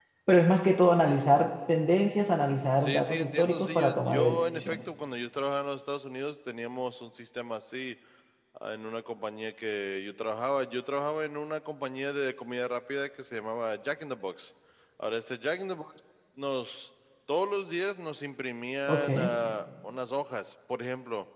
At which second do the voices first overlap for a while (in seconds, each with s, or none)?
2.8 s